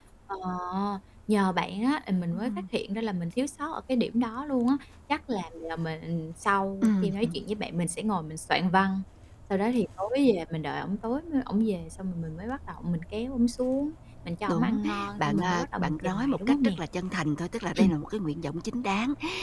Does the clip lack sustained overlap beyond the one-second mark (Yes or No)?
No